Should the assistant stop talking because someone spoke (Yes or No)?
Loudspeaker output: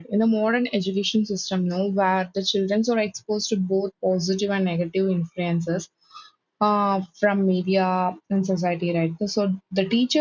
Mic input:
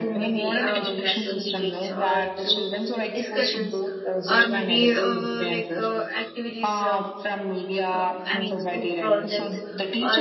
Yes